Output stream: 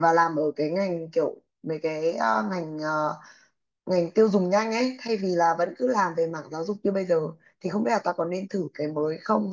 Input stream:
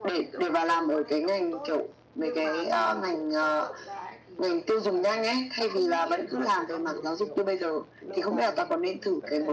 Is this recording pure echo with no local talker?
No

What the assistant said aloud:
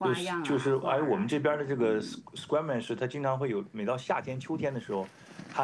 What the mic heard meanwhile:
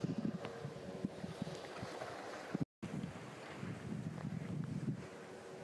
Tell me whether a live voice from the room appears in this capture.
No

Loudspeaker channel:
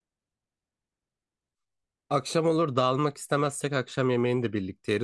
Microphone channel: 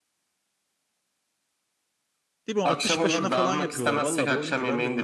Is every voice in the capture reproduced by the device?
No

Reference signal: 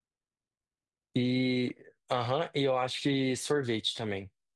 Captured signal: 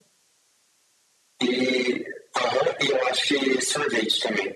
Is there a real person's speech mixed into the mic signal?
No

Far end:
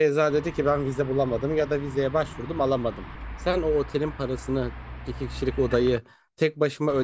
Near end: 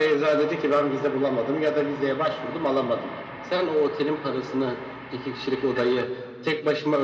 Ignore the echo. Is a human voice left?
No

